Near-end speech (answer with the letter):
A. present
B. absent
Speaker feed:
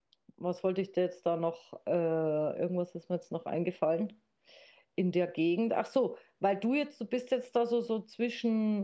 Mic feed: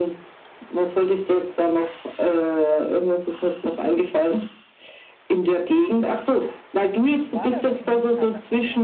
A